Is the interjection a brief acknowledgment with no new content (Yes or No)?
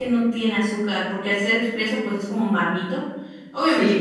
No